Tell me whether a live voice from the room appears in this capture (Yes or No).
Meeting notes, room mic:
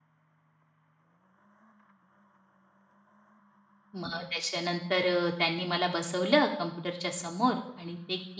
Yes